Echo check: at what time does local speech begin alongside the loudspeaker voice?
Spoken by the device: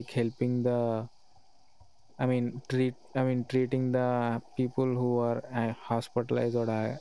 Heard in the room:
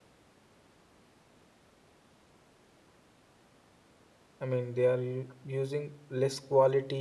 4.4 s

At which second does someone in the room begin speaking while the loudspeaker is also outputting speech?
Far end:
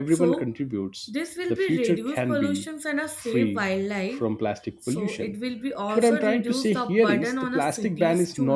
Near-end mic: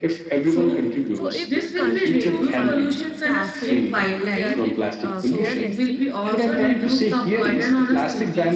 1.1 s

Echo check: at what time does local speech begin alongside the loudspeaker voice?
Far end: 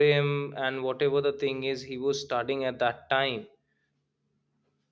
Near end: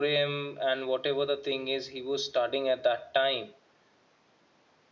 none

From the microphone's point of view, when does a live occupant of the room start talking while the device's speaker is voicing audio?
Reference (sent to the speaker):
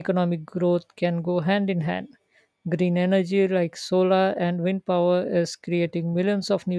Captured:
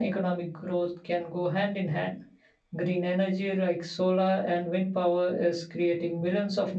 none

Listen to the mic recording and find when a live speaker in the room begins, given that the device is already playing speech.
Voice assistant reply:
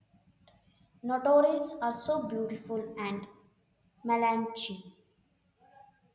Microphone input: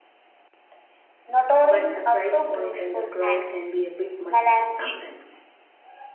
1.6 s

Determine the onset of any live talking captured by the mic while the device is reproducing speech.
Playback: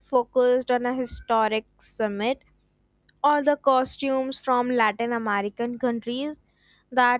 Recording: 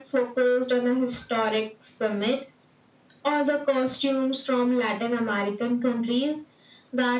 none

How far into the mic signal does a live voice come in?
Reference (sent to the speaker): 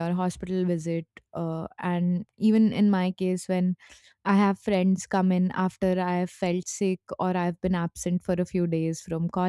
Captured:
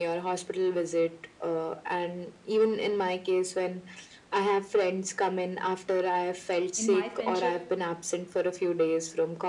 6.8 s

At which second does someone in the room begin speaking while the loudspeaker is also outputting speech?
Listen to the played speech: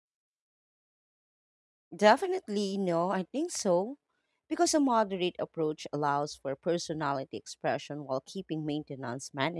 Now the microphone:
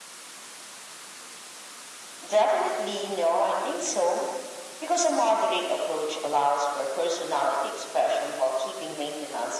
none

